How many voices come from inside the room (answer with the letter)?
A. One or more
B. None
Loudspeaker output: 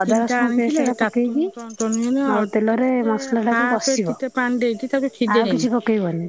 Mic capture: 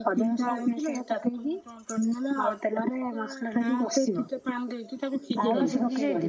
A